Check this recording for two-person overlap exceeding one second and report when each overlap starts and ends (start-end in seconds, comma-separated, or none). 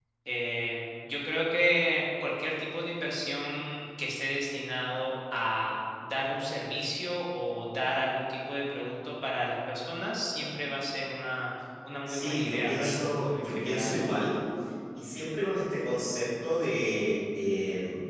12.1-14.0